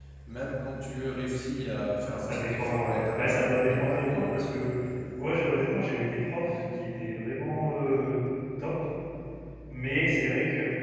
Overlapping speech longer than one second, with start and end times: 2.2-4.6

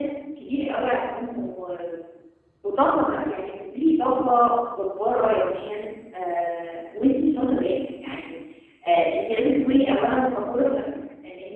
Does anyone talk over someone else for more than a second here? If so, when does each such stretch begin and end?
none

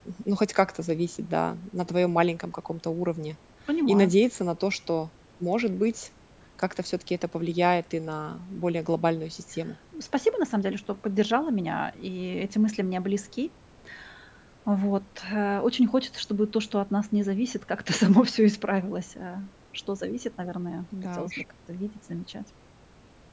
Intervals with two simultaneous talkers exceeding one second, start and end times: none

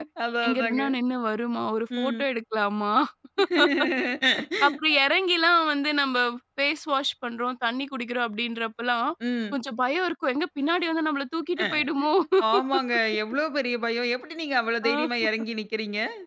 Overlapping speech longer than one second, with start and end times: none

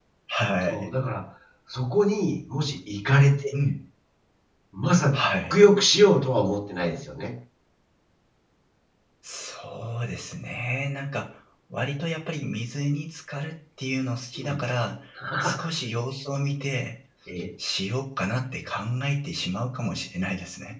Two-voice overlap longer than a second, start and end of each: none

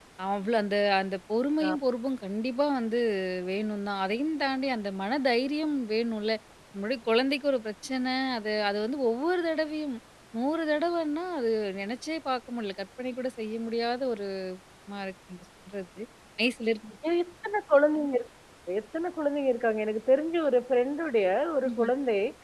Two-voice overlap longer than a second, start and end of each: none

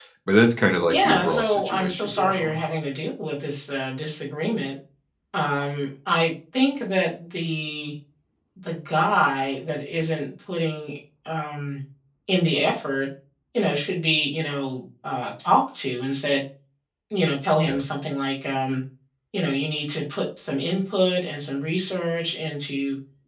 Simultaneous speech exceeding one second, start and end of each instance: 0.9-2.6

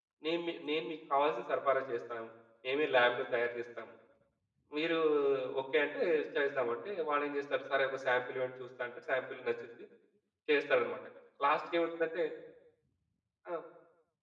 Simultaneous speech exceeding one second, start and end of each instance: none

